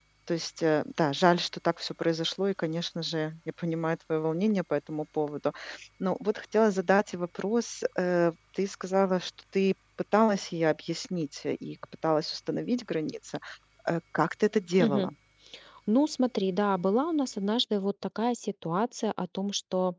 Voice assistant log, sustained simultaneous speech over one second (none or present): none